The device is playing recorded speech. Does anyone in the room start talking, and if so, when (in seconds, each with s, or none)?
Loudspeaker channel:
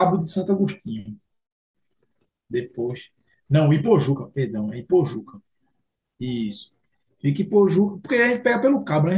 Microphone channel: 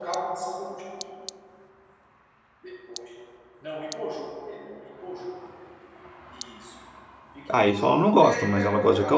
7.5 s